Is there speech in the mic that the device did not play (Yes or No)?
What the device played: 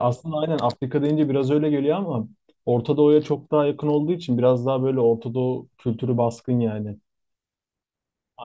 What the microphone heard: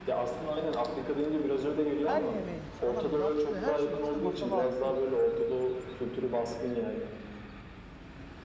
Yes